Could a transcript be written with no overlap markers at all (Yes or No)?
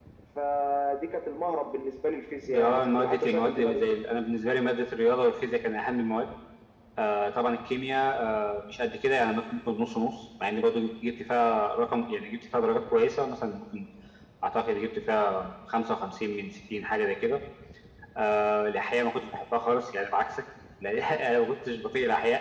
No